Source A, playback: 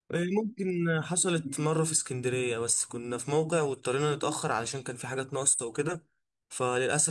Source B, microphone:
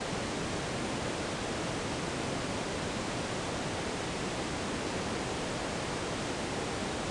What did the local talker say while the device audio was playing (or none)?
none